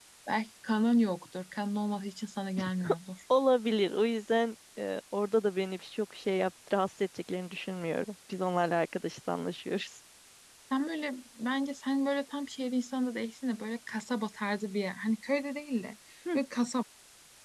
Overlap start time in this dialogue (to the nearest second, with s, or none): none